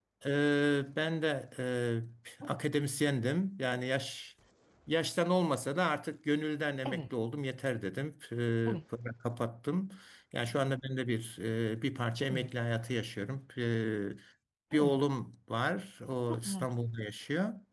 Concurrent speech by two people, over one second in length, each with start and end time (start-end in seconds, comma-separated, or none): none